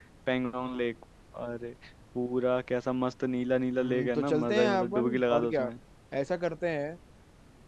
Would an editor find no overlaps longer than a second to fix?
No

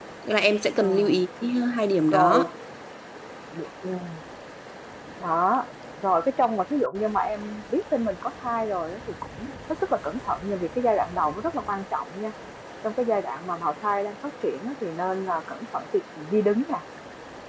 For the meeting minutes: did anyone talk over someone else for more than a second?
No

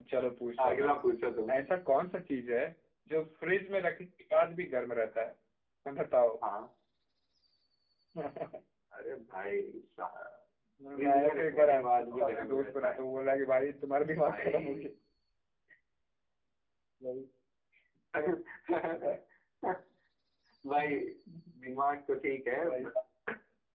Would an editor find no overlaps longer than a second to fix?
No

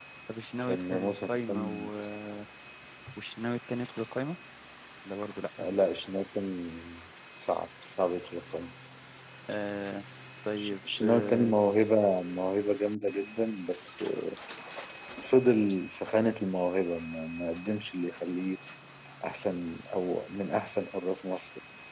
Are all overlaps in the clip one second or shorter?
No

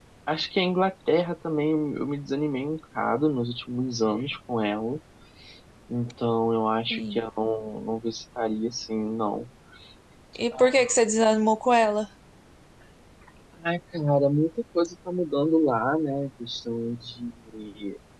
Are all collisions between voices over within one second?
Yes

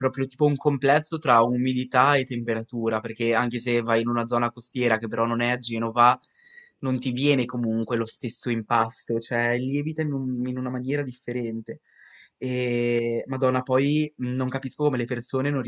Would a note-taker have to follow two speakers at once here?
No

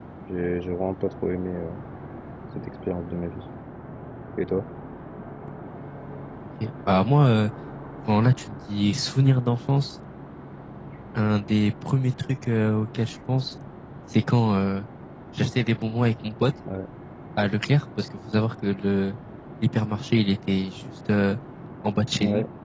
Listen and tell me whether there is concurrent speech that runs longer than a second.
No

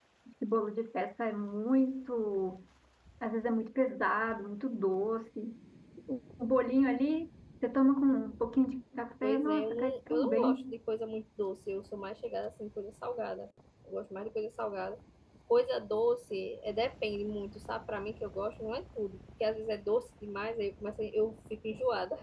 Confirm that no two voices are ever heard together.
No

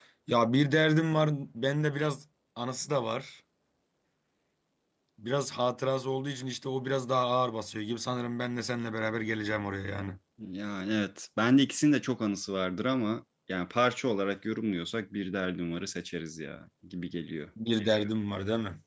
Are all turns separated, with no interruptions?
Yes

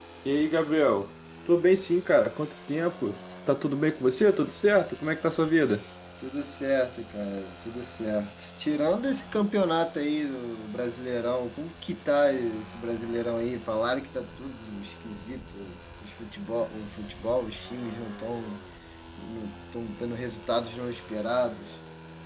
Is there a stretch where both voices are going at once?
No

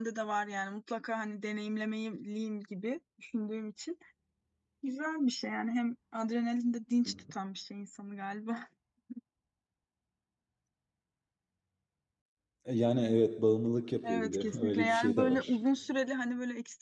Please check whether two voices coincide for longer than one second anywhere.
Yes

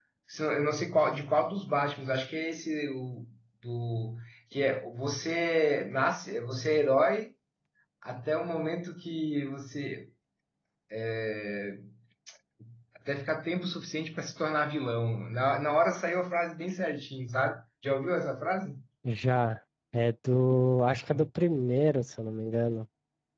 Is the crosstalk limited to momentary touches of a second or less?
Yes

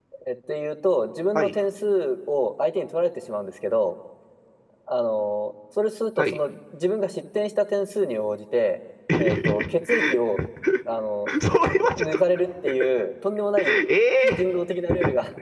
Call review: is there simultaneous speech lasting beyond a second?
Yes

